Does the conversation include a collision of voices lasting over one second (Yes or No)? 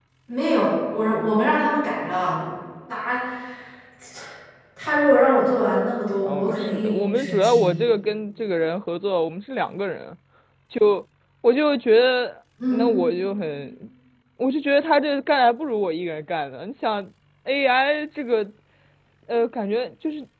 Yes